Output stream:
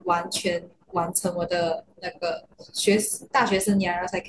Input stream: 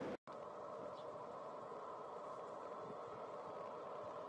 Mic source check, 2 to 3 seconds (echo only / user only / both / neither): neither